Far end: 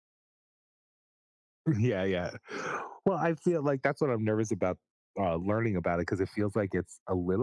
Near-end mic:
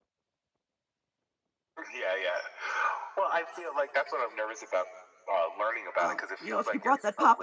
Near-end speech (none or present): present